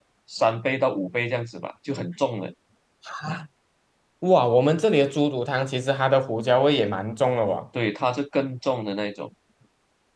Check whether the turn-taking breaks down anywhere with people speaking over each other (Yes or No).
No